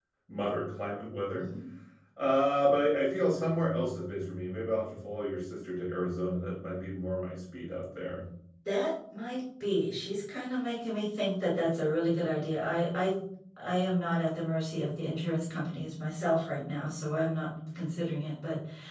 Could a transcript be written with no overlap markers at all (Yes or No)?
Yes